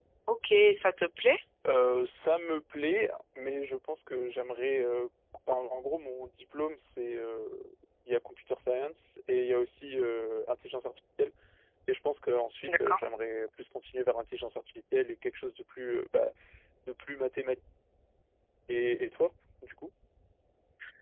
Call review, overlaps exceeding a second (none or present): none